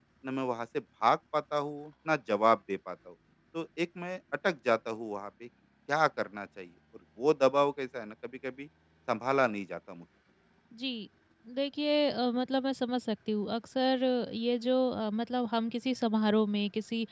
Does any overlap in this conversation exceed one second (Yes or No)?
No